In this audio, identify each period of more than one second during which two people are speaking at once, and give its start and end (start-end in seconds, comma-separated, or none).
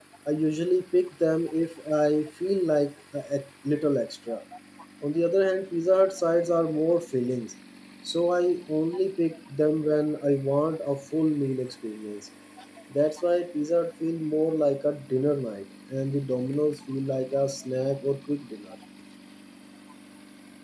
none